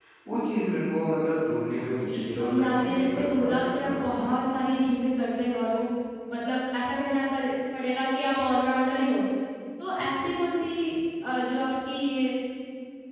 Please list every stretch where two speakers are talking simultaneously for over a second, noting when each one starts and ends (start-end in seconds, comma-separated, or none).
1.9-4.3